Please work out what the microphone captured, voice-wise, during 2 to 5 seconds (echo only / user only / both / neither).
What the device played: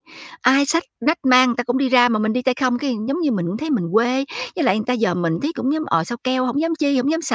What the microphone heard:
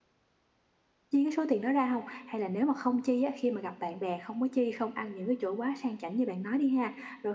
user only